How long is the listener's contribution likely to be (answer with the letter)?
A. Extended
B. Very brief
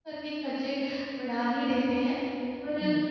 B